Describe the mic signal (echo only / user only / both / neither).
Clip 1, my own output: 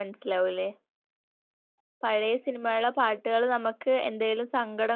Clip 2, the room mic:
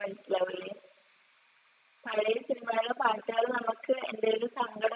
echo only